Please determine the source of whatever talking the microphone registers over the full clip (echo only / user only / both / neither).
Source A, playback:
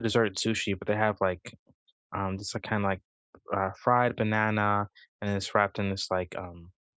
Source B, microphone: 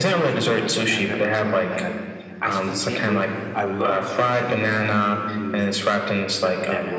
both